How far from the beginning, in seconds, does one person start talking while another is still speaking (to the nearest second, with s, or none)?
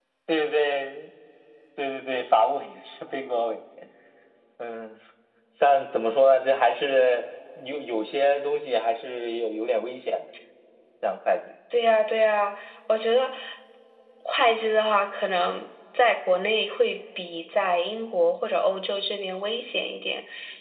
none